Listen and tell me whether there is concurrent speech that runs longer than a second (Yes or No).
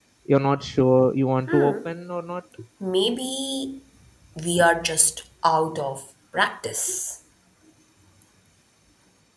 No